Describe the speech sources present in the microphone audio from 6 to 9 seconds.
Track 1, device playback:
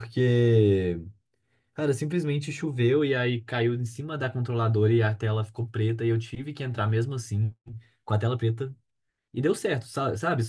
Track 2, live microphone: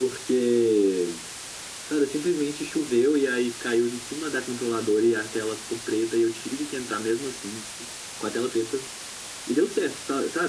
echo only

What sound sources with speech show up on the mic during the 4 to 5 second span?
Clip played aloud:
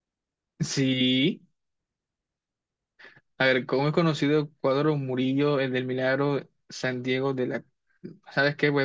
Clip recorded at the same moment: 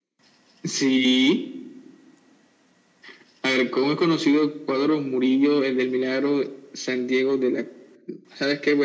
echo only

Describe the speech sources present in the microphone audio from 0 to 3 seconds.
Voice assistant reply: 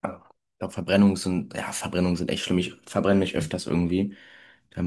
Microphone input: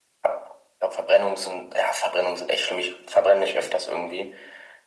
echo only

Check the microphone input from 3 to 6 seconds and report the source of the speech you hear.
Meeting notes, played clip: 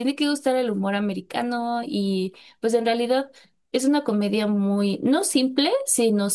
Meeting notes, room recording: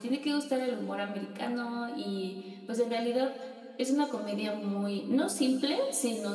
echo only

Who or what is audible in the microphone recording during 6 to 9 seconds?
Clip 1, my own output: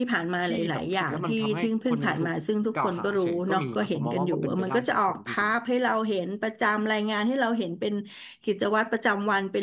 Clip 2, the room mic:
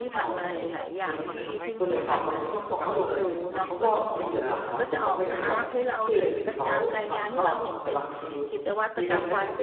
both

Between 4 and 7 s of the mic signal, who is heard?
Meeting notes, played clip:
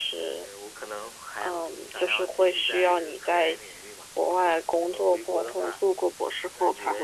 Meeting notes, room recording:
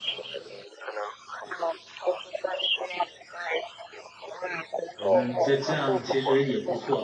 both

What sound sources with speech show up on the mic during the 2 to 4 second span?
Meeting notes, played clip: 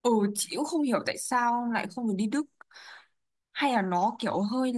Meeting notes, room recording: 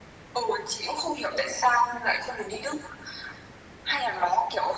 echo only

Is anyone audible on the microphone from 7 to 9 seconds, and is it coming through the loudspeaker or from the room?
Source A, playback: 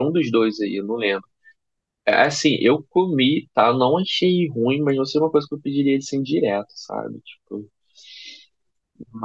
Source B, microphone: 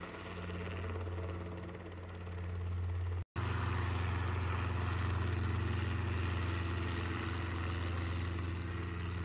neither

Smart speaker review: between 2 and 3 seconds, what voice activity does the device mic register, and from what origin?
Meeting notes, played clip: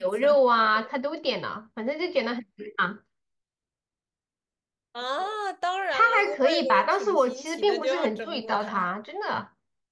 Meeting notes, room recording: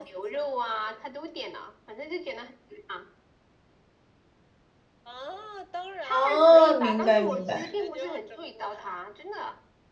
echo only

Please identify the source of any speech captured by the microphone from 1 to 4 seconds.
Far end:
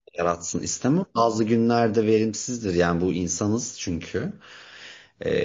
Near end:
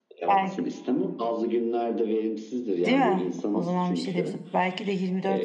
both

